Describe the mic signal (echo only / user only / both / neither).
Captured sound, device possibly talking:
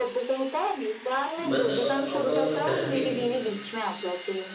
both